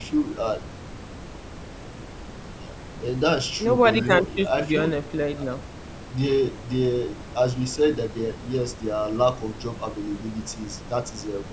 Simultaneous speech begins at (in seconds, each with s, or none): 3.6 s